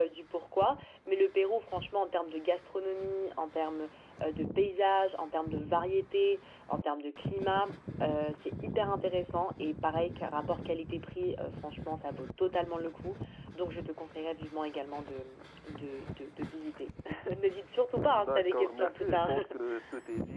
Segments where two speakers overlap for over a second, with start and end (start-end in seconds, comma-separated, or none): 18.1-19.3